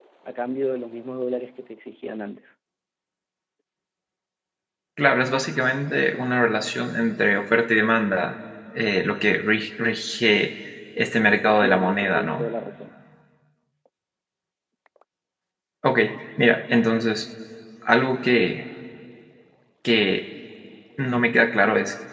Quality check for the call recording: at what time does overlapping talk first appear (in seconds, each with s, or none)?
11.3 s